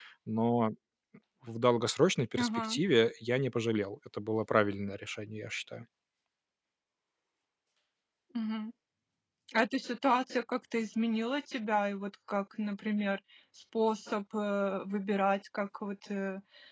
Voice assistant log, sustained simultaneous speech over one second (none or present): none